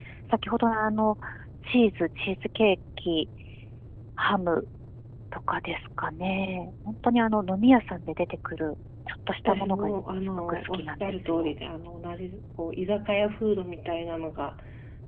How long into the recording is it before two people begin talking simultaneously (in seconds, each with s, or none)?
9.4 s